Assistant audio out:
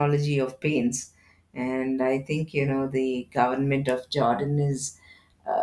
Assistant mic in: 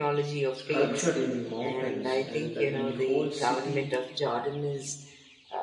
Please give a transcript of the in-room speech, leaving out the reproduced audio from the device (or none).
sculptured in the mountains and uh, the whole city.